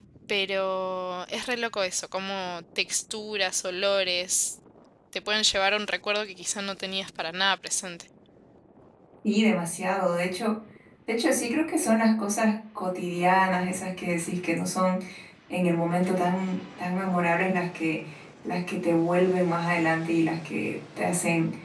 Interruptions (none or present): none